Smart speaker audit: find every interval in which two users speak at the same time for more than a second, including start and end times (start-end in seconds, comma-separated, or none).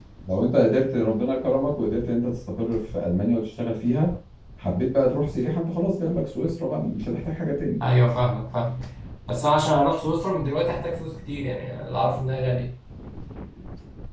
none